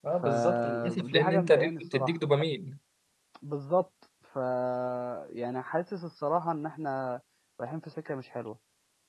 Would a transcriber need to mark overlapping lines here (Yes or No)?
Yes